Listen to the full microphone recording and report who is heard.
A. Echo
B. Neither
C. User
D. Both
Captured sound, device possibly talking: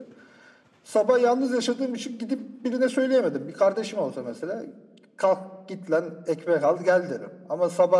A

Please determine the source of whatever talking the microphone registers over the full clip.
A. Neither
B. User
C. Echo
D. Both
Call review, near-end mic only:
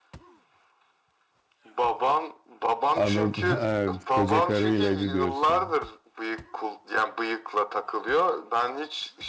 D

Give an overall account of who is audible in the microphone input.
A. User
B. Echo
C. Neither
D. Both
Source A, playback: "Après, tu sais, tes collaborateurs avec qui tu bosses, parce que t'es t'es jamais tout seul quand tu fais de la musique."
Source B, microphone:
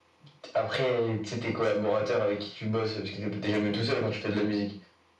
B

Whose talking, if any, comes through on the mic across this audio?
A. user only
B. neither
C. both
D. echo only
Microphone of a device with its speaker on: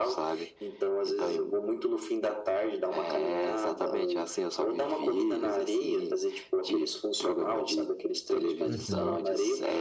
C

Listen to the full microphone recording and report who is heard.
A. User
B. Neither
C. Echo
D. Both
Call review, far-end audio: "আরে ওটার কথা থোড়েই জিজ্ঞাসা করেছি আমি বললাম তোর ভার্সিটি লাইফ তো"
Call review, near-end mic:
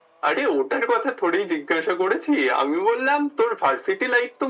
C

